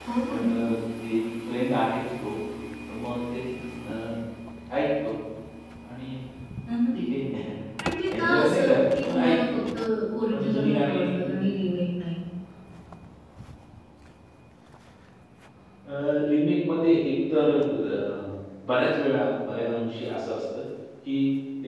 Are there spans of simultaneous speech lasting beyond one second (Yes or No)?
Yes